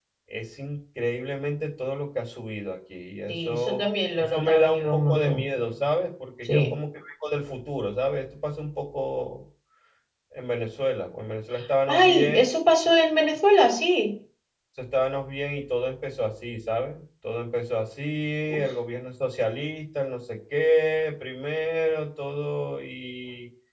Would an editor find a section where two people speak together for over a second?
Yes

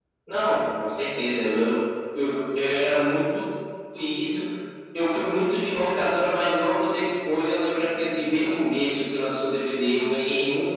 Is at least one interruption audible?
No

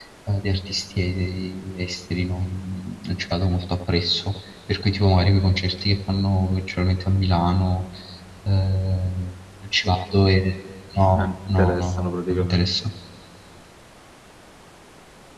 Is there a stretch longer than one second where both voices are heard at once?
Yes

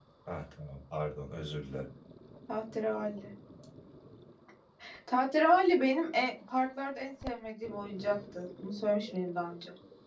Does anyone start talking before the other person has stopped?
No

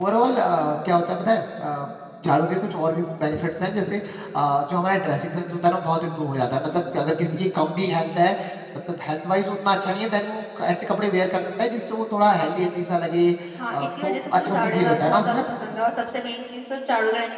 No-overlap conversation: No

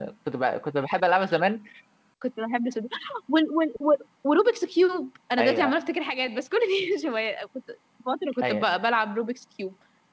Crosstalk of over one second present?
No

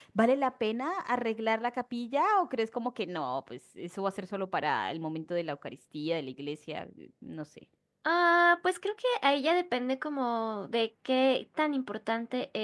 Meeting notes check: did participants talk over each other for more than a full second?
No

